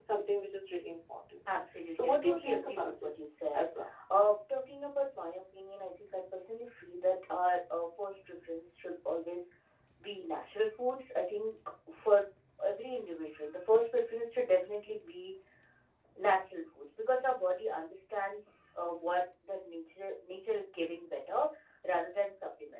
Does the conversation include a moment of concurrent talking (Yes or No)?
Yes